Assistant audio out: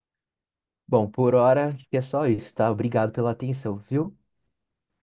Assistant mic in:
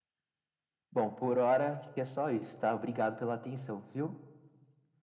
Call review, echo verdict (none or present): present